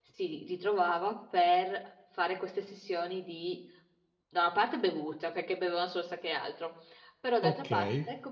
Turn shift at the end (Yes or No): No